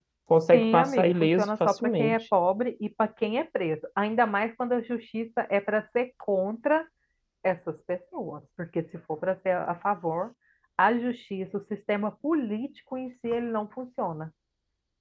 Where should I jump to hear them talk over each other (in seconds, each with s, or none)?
0.5 s